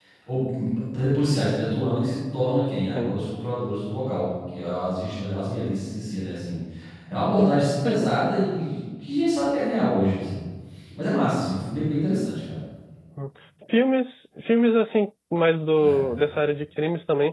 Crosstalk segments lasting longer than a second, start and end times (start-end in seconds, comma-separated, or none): none